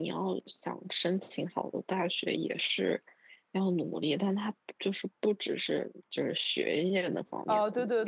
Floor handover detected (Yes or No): Yes